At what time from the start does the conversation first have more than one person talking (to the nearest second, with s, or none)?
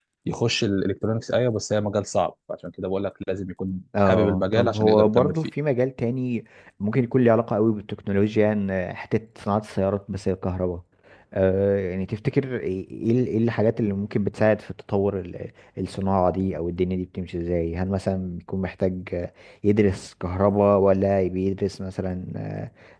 4 s